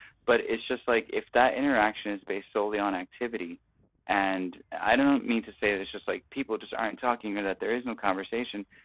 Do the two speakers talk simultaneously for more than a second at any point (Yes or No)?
No